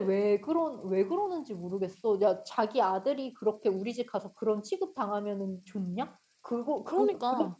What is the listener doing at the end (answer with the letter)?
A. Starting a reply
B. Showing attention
B